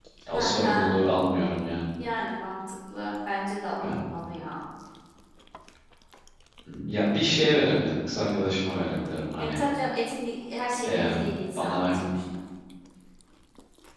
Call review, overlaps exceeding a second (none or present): none